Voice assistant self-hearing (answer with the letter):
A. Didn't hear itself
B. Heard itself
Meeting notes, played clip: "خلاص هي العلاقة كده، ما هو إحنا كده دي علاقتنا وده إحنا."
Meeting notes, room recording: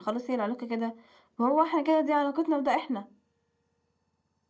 B